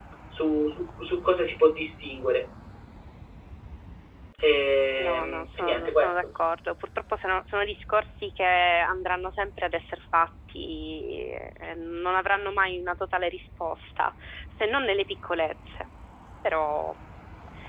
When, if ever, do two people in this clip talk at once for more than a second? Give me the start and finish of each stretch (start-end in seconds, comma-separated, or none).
5.0-6.2